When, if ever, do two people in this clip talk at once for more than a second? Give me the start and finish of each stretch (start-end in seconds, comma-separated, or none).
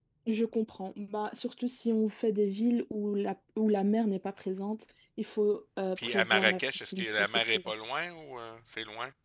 6.0-7.6